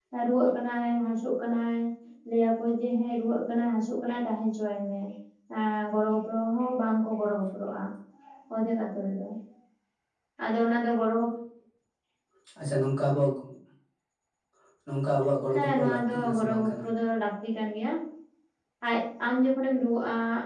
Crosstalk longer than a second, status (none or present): present